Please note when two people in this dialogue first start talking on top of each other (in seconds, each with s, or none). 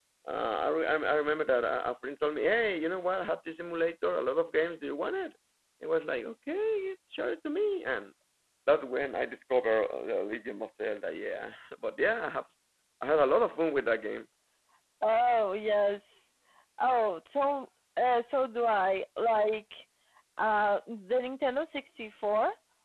none